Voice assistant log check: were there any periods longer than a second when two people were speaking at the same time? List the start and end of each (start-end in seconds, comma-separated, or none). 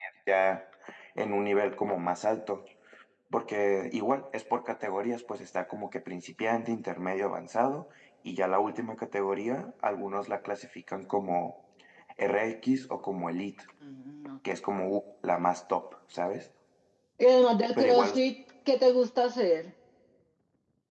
none